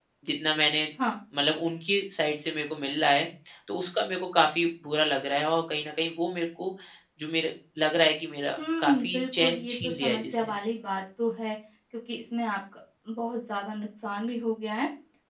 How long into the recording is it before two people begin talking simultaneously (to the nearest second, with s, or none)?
9 s